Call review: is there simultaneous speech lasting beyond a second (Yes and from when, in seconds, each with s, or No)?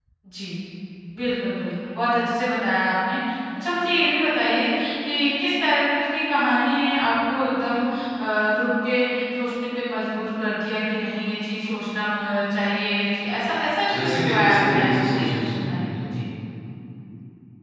Yes, from 13.9 s